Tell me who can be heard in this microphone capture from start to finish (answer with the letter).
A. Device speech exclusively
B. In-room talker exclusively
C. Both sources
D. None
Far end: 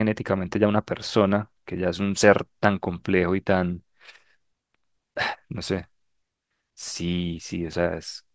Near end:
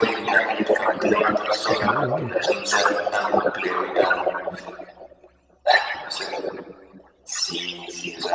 C